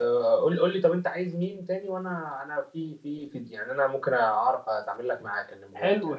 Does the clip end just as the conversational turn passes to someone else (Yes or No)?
Yes